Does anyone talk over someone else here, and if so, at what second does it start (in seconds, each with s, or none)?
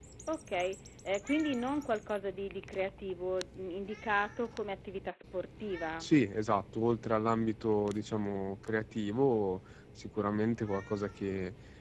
none